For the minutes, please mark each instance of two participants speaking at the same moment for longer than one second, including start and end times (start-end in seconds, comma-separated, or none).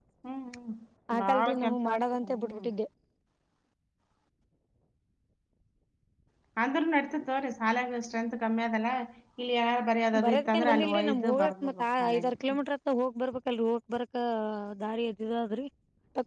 1.2-2.7, 10.2-12.3